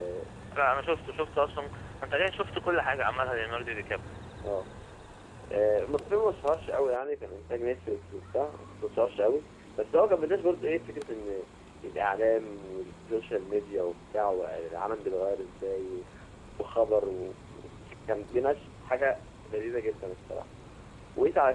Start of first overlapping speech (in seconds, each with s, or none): none